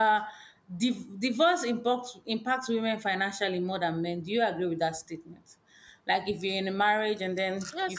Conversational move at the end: taking over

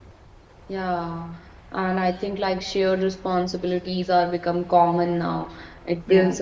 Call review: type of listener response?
listening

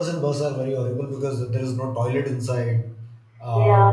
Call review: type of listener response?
listening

